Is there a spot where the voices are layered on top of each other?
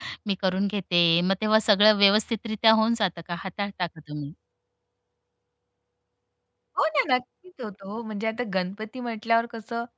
No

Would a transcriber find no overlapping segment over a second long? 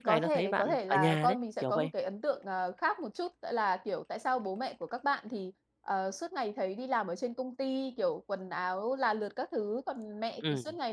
No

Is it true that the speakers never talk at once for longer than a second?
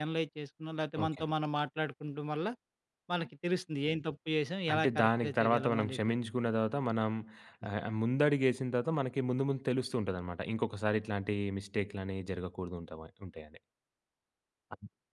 No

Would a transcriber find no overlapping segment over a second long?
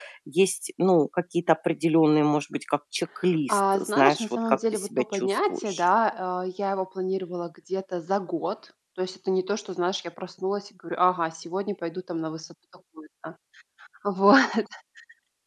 No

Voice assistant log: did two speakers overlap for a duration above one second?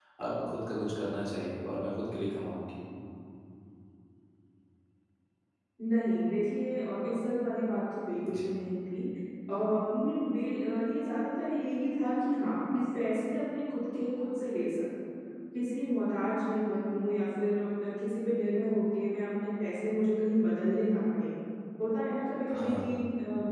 No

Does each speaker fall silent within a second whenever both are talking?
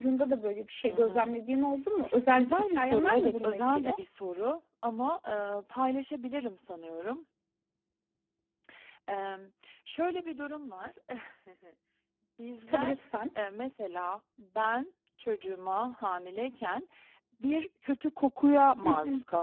No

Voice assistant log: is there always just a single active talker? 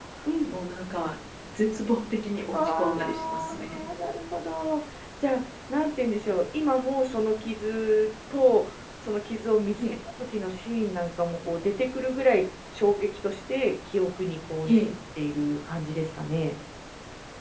No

